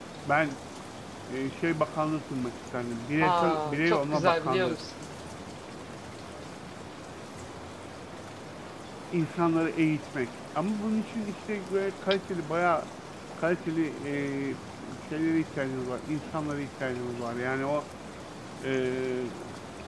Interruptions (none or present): present